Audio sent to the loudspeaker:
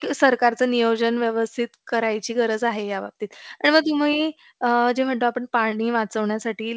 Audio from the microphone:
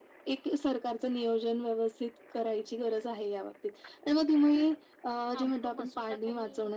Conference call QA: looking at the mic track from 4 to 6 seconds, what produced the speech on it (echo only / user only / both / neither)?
both